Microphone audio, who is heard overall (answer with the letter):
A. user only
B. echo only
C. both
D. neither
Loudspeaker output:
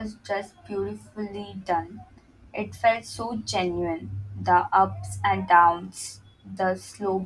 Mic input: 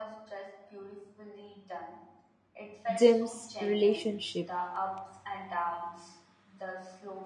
C